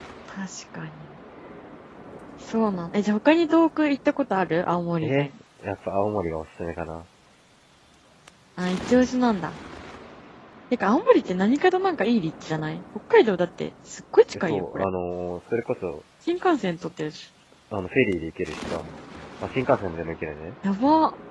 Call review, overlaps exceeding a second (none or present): none